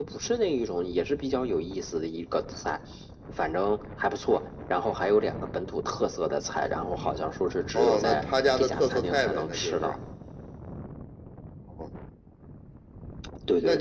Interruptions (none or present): present